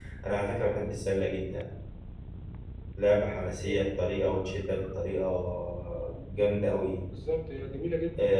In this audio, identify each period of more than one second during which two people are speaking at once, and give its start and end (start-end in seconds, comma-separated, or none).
none